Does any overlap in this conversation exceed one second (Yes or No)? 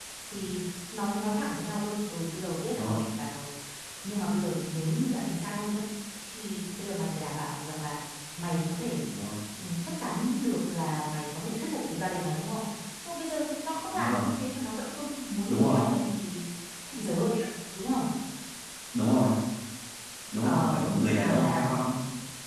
Yes